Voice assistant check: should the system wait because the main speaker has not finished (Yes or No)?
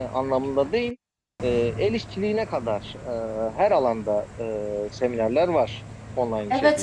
No